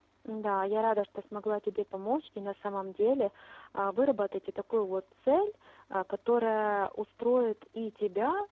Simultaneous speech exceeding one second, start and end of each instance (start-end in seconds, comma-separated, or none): none